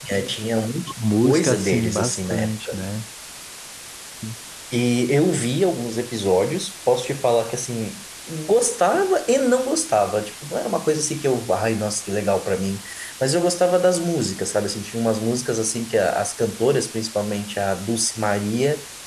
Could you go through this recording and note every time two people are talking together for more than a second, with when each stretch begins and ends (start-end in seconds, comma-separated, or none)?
1.2-2.8